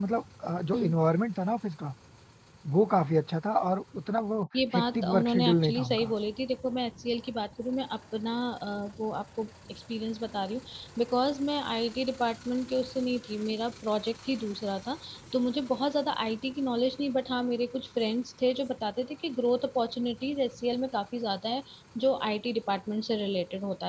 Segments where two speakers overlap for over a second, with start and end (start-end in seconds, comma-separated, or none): 4.7-6.1